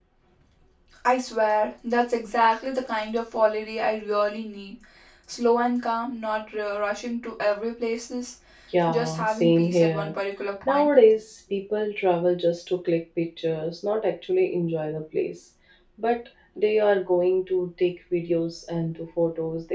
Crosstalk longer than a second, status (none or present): present